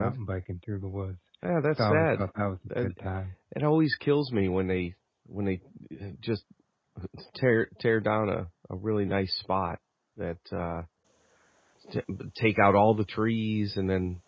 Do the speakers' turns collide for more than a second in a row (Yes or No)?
No